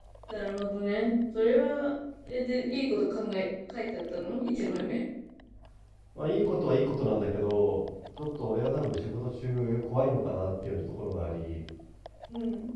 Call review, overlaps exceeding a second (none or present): none